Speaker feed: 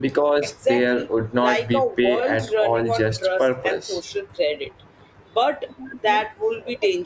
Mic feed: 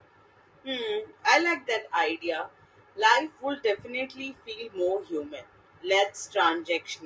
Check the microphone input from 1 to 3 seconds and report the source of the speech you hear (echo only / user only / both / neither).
user only